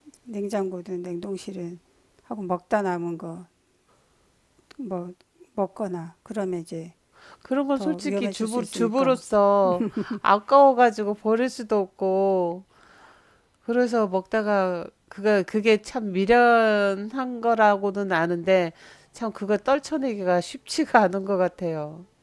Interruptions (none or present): present